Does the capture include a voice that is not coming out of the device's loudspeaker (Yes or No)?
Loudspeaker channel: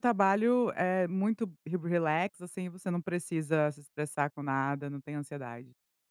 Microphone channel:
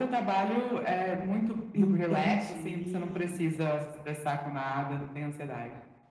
Yes